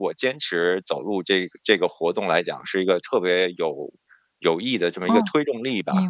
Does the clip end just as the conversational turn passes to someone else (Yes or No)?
Yes